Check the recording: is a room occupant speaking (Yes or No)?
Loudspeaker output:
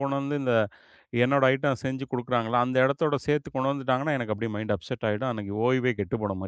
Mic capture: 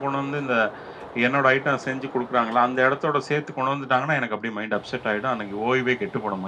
No